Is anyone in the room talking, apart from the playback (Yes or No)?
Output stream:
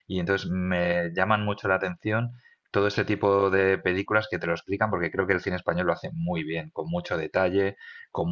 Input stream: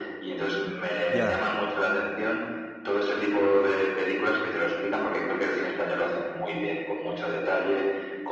Yes